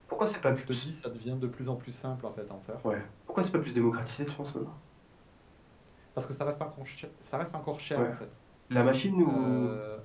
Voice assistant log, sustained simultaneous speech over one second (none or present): none